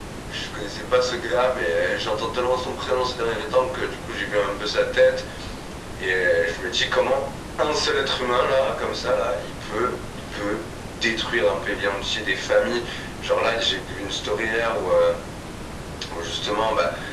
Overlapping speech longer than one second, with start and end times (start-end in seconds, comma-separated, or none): none